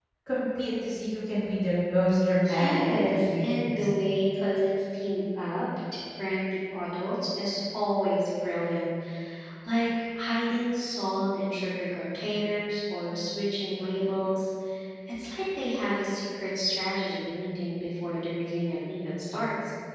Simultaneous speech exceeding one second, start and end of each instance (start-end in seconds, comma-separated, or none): 2.6-3.9